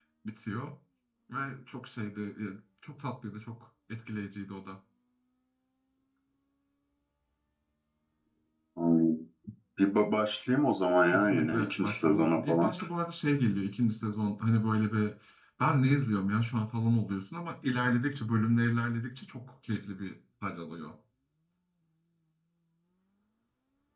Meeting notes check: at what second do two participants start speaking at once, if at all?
11 s

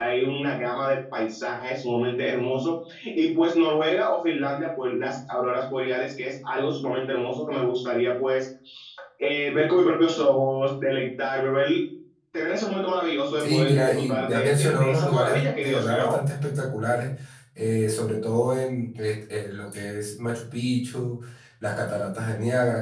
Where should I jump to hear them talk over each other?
13 s

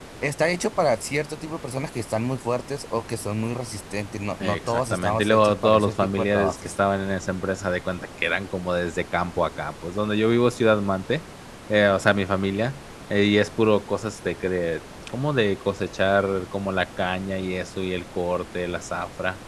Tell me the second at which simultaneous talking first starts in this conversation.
4 s

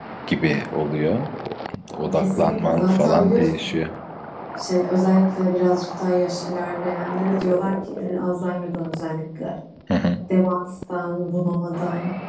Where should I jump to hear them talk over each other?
2 s

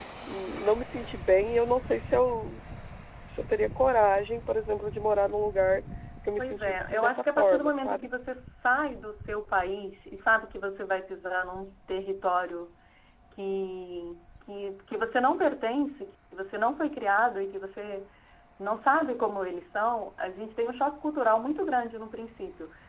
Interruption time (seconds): 6 s

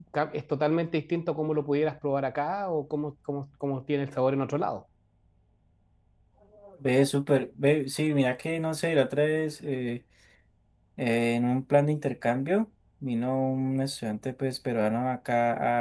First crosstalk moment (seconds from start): none

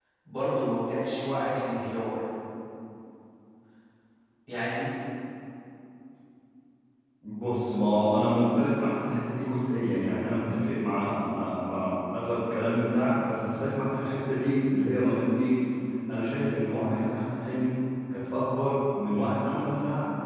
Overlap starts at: none

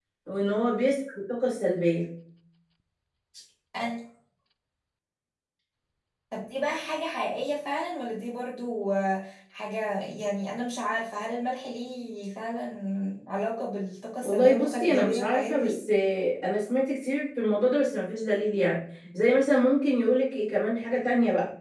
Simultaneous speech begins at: 14 s

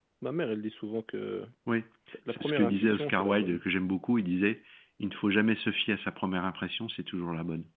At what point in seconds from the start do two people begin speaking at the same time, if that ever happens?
2 s

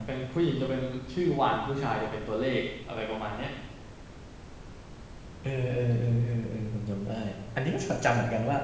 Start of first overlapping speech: none

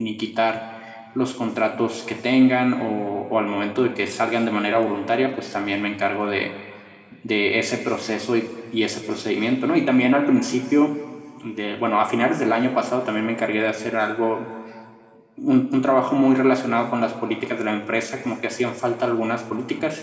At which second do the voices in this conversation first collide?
none

